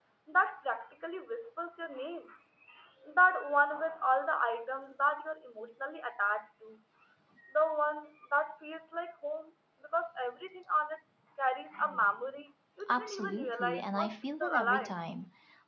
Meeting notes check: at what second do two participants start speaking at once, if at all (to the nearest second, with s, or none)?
13 s